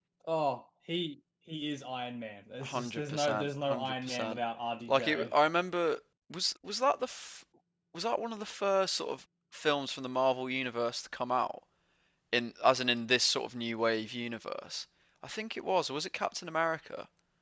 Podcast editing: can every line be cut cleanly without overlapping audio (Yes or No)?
No